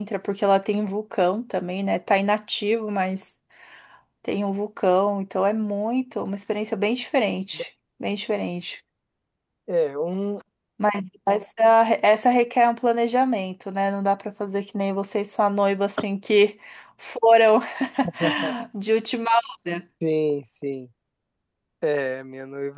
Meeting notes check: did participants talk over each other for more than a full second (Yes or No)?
No